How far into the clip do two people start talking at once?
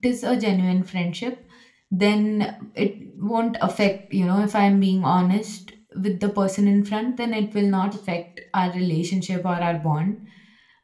none

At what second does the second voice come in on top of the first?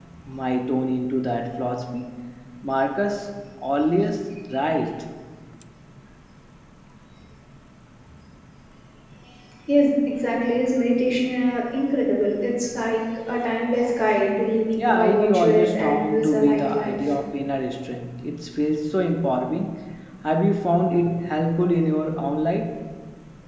15 s

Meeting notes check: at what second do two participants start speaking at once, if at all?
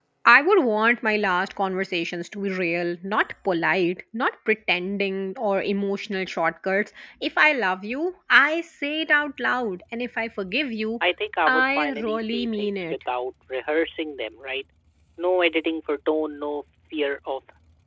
11 s

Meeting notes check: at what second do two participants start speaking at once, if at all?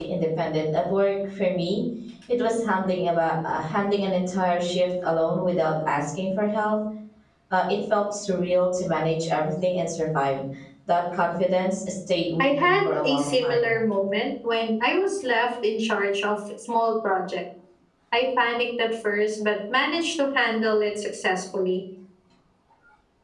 12 s

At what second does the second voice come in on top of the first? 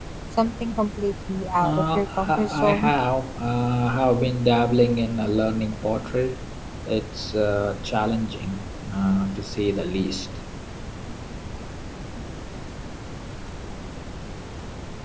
2 s

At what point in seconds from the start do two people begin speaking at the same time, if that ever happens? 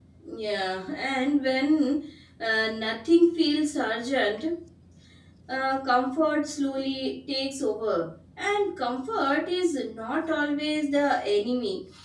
none

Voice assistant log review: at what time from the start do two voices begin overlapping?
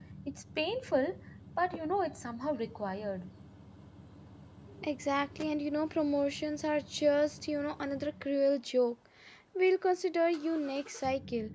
none

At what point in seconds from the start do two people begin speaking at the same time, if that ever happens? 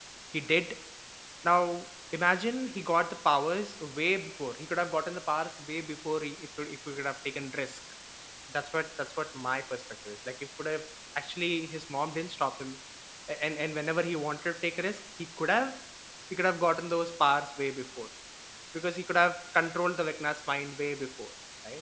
none

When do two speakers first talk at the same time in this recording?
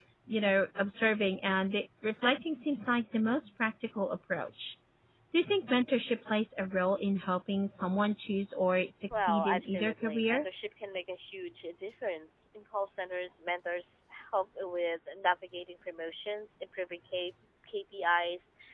9 s

